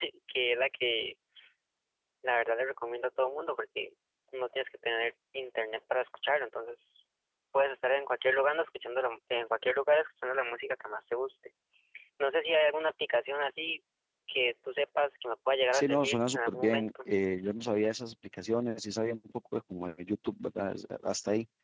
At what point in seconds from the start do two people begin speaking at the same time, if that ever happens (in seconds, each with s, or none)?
15.7 s